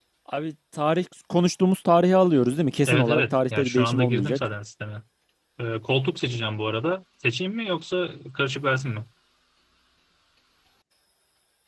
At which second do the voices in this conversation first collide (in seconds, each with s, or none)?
2.9 s